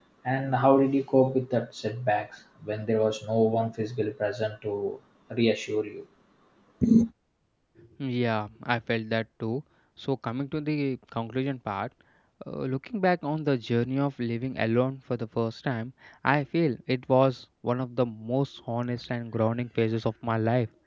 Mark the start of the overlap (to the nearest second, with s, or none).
none